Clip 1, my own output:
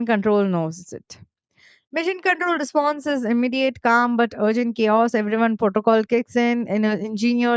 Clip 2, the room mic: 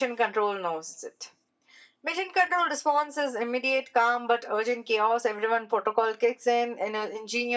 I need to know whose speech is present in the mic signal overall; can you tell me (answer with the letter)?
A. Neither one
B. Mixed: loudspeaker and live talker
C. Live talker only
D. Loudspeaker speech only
D